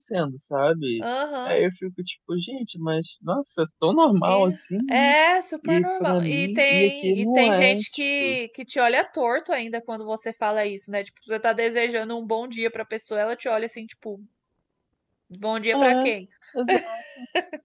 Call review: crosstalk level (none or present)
present